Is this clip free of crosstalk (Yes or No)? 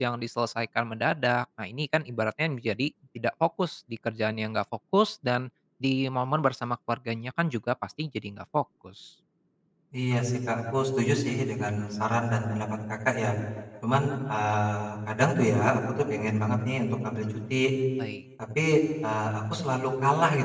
Yes